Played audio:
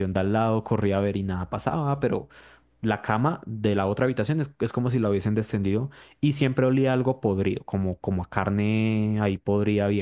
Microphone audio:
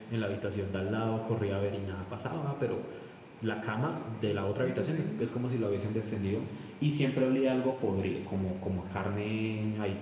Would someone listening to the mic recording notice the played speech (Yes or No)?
Yes